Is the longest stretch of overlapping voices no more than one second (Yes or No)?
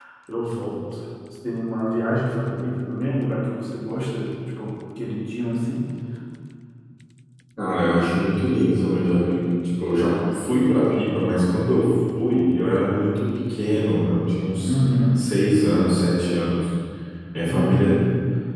Yes